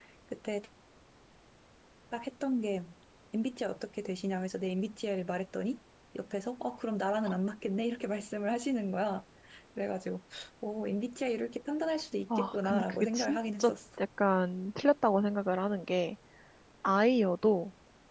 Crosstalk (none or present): present